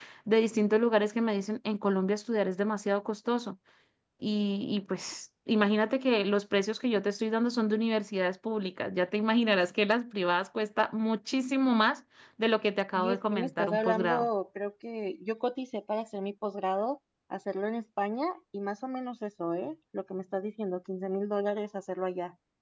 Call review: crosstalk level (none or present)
present